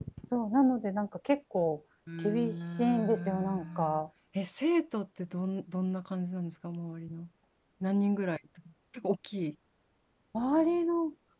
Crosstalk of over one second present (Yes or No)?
Yes